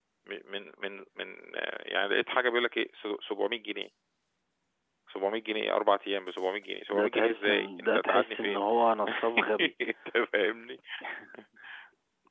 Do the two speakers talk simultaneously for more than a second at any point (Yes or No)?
Yes